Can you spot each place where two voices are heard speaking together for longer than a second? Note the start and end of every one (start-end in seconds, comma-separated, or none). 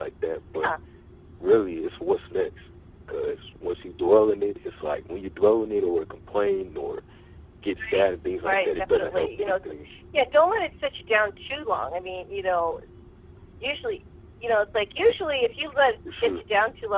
8.0-9.7